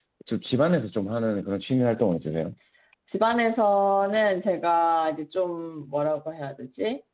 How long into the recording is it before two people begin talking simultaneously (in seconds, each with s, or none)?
none